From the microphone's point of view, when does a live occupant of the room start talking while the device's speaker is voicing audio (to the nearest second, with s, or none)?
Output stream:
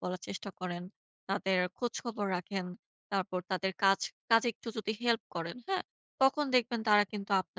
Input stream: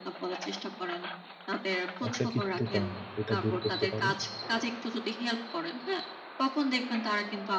2 s